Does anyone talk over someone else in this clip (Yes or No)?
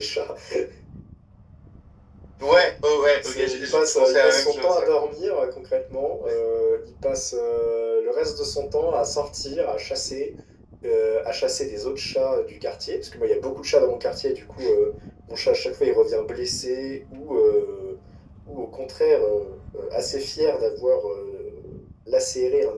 Yes